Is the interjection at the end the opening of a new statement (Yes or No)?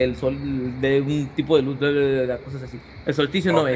Yes